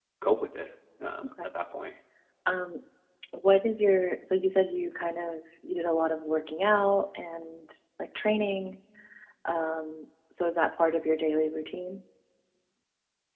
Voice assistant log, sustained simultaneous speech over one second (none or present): none